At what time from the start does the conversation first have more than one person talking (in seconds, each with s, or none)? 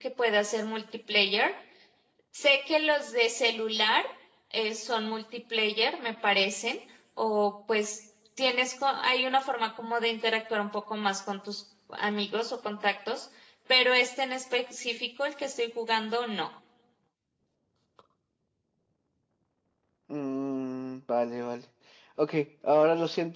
none